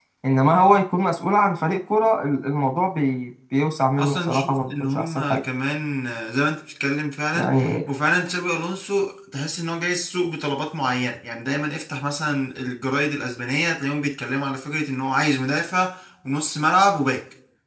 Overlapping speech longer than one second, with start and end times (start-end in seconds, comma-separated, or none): 4.0-5.4